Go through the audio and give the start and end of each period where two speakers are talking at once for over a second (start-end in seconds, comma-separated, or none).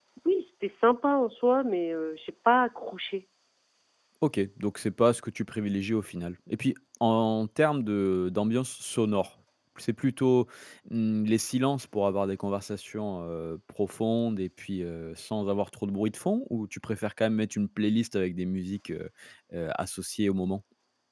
none